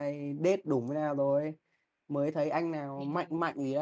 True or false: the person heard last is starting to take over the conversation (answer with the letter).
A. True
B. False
B